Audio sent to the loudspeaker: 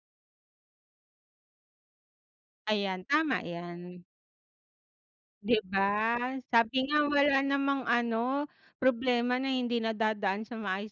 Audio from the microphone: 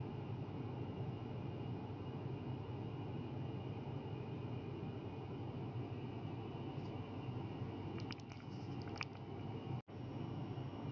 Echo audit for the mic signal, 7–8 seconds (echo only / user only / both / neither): neither